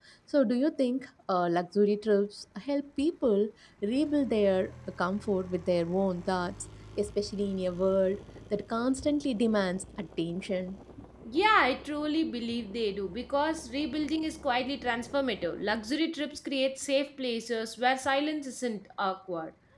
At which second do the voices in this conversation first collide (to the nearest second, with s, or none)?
none